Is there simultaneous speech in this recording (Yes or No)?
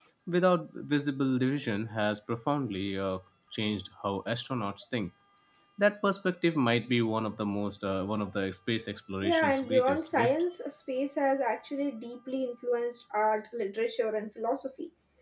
Yes